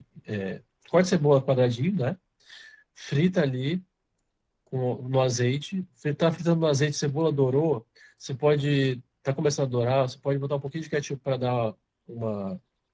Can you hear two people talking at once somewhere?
No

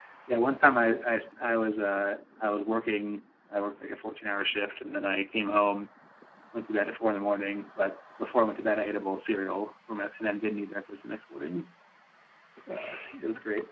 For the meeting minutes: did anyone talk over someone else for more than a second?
No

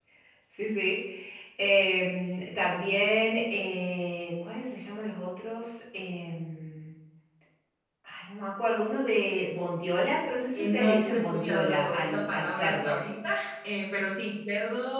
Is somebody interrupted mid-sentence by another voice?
Yes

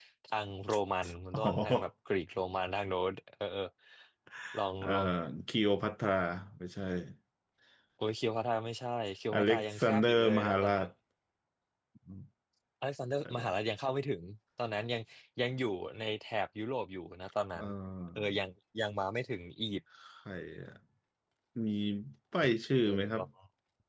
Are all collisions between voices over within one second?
No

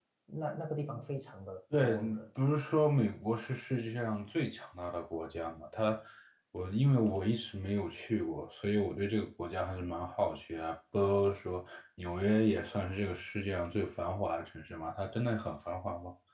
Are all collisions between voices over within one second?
Yes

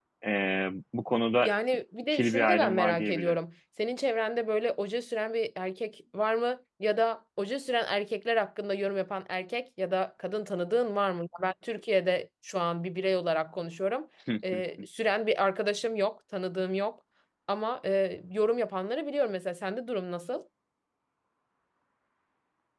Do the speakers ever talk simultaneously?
Yes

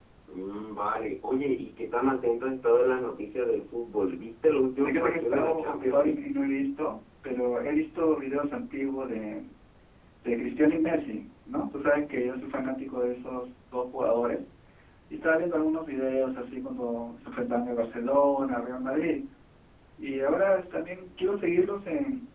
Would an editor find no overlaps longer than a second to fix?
No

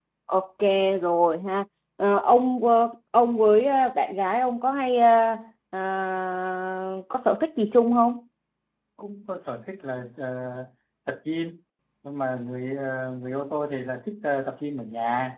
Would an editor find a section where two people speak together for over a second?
No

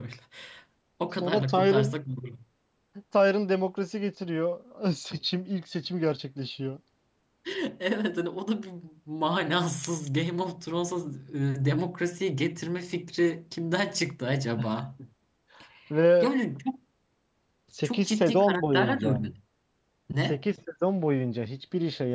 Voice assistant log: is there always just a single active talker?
No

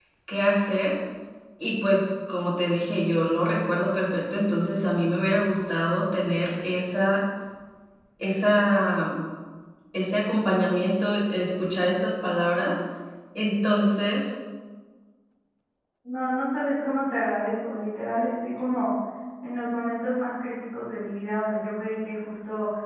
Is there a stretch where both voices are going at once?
No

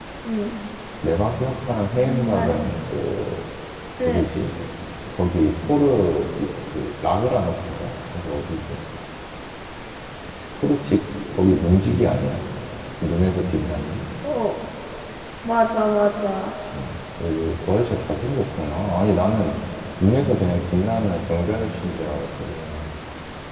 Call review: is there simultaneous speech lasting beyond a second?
No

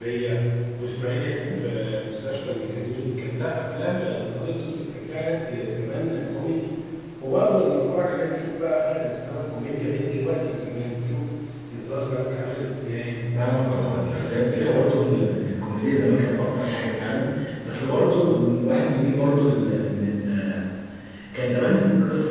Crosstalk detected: Yes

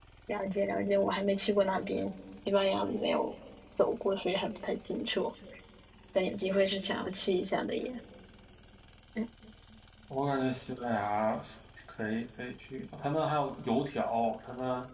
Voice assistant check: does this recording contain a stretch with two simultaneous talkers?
No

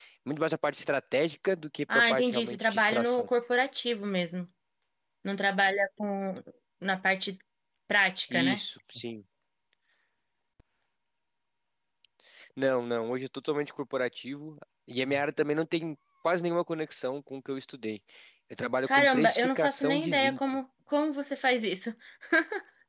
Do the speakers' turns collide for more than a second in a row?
Yes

